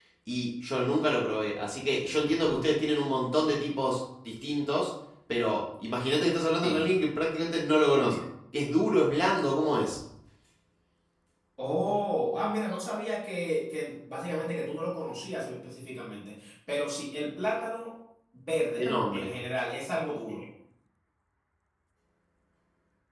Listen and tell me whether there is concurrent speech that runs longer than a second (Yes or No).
No